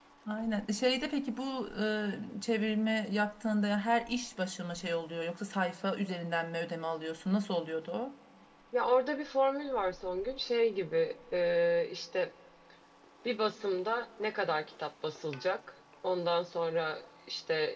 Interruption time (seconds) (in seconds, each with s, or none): none